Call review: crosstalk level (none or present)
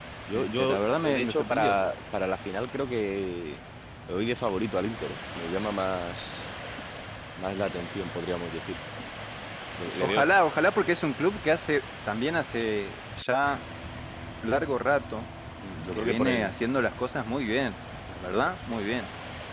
present